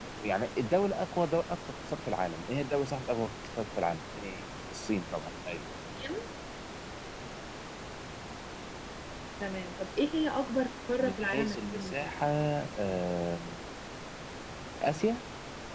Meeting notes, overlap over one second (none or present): present